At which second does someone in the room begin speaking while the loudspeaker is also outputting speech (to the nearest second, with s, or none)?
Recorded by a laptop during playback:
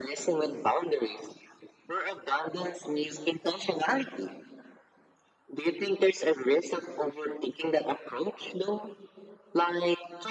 none